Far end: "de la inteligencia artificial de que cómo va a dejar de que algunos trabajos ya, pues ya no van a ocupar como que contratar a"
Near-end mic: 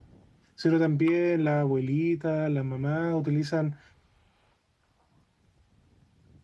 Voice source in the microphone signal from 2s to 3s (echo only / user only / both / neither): user only